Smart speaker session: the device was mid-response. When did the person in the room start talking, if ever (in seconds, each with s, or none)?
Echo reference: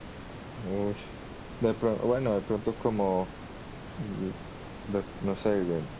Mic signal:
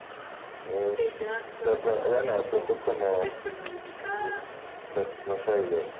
0.9 s